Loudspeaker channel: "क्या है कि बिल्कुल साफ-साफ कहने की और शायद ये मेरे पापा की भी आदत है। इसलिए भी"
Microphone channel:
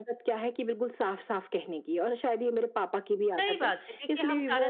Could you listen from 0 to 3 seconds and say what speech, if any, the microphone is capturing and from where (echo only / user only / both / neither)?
echo only